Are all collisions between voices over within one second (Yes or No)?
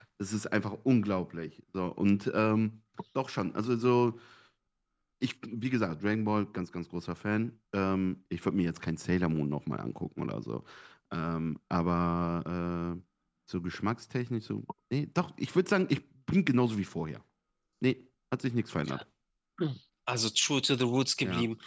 Yes